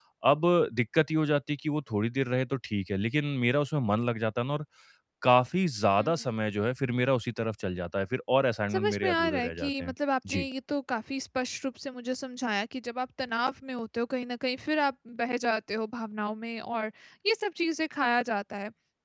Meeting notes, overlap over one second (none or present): present